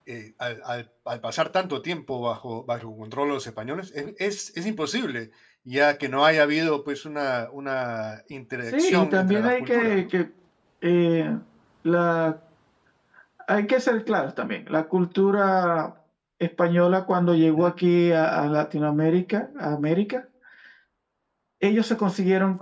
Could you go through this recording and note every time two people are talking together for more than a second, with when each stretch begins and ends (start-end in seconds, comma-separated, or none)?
8.7-10.1